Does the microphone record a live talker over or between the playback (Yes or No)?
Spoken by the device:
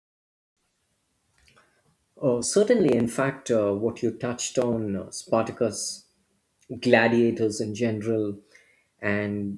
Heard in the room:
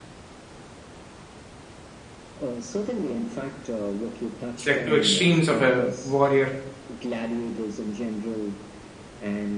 Yes